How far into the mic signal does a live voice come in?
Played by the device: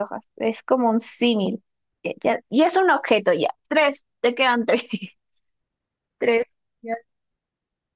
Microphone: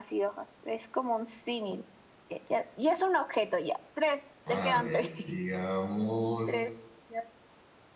4.4 s

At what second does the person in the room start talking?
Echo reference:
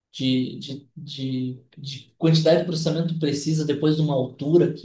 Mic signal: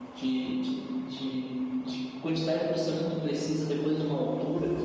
none

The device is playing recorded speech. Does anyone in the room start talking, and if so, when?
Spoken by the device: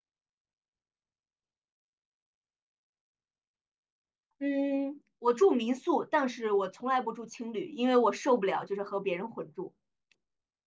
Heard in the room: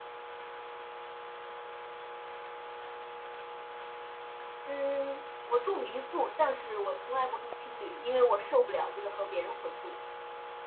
none

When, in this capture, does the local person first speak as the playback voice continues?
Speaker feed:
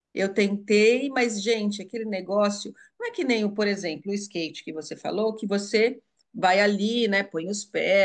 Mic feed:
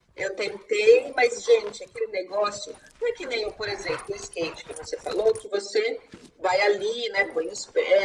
none

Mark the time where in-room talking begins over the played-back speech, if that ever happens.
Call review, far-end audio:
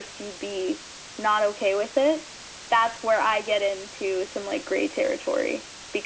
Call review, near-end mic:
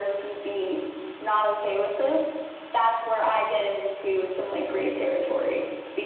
none

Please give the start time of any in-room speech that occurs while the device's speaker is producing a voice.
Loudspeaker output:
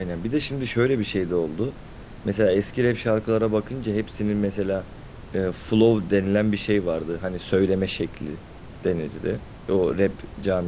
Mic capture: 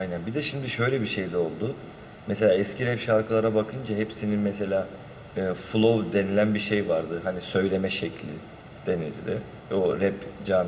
none

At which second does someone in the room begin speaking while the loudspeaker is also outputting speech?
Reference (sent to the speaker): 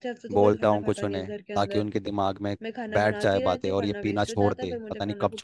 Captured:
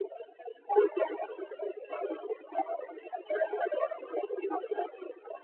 none

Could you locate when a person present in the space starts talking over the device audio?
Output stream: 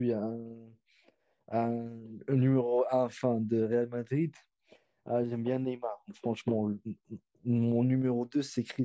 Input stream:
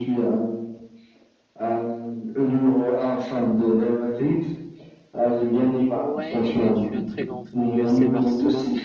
5.9 s

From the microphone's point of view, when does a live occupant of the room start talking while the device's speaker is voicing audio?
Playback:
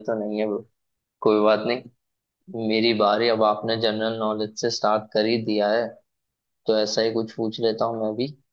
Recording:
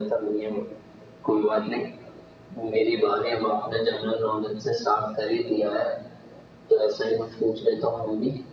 none

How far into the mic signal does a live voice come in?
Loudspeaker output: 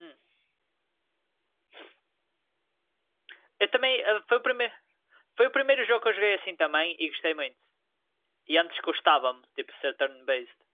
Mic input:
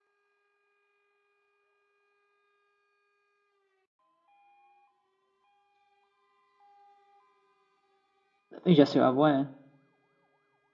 8.7 s

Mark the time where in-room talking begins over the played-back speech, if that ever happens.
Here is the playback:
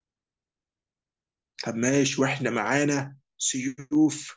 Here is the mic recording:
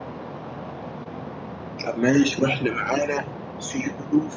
none

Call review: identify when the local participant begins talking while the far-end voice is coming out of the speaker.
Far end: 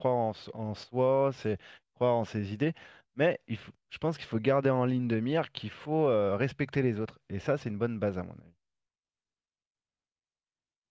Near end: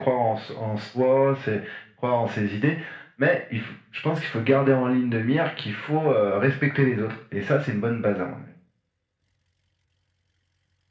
none

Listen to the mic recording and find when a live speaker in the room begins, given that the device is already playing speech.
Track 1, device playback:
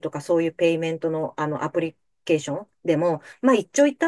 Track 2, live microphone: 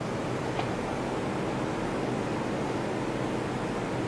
none

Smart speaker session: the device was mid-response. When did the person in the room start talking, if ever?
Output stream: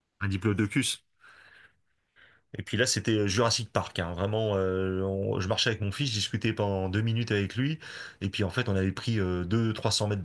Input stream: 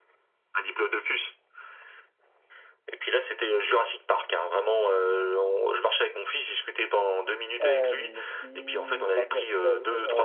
7.6 s

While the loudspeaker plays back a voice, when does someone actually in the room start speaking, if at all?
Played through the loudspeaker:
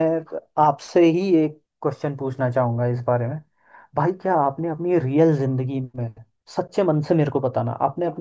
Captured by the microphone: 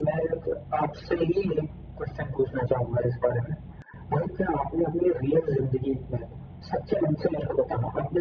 none

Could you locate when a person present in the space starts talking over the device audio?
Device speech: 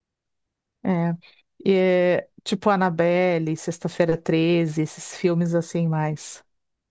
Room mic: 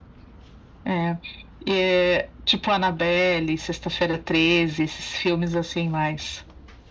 none

